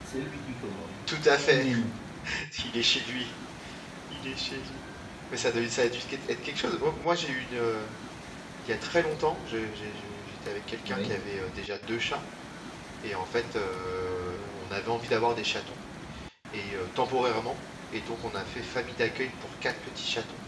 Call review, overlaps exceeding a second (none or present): none